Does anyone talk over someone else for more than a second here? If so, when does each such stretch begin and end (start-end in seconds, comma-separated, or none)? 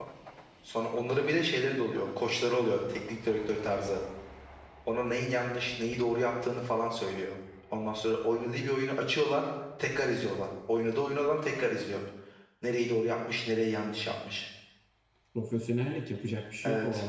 none